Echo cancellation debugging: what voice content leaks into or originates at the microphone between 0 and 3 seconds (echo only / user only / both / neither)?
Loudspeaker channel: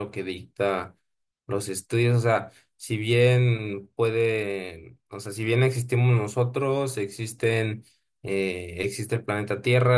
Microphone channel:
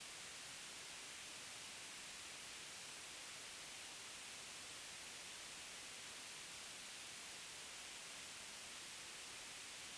neither